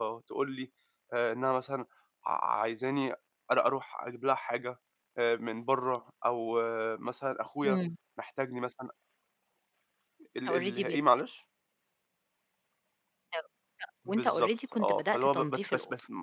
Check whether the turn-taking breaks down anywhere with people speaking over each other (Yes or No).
Yes